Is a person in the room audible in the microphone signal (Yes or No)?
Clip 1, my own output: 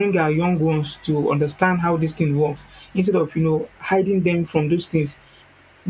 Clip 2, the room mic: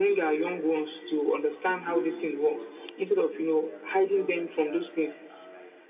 Yes